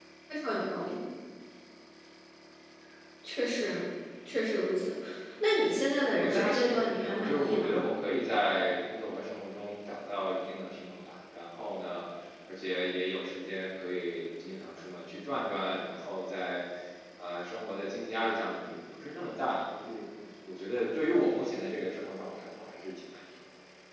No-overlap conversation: No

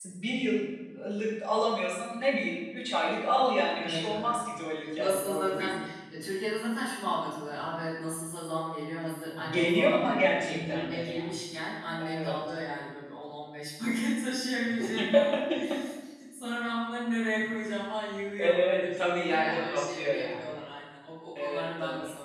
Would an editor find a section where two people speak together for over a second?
Yes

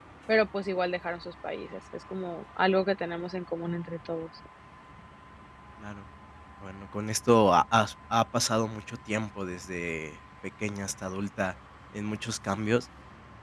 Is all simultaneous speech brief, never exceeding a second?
Yes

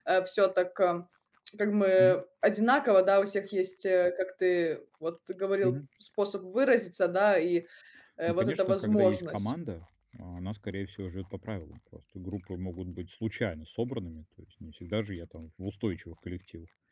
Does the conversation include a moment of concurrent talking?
Yes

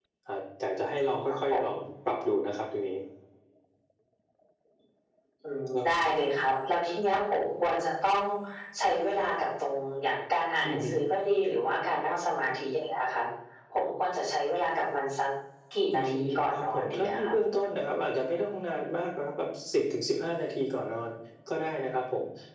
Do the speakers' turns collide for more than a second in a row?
Yes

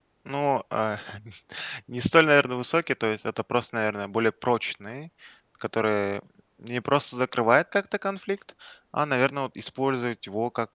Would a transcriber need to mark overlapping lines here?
No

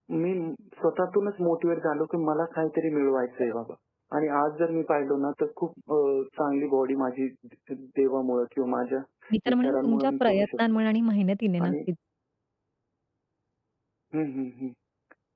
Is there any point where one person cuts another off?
Yes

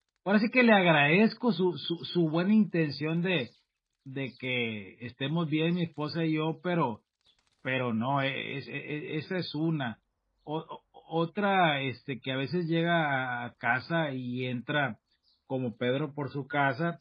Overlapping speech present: No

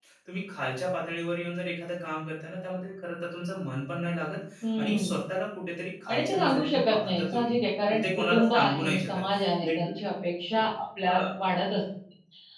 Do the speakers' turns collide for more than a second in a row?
Yes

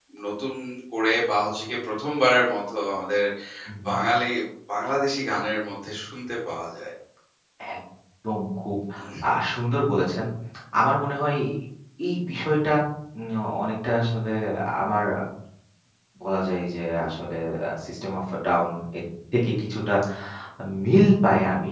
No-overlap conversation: Yes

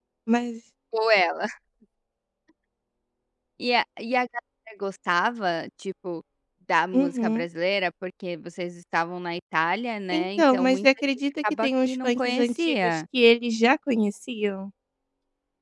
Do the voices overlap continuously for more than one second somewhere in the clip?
Yes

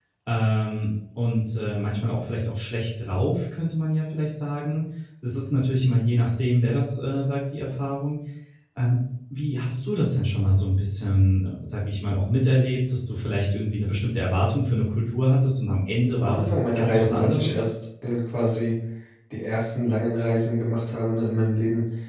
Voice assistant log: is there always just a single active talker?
No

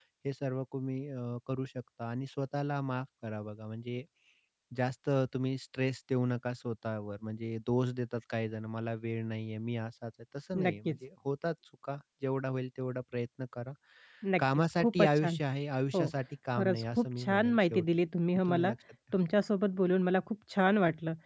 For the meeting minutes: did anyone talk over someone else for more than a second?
Yes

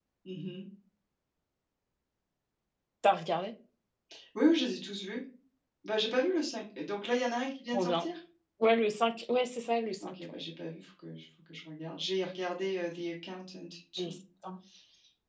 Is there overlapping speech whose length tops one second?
No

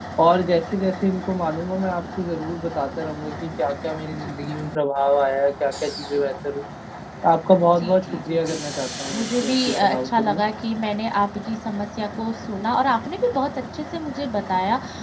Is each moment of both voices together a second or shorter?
No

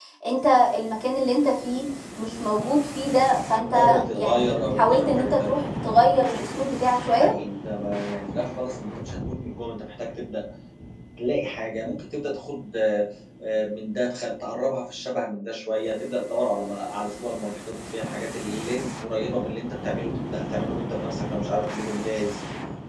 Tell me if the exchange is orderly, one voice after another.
No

